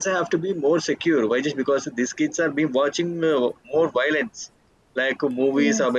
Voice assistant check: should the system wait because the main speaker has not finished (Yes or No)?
Yes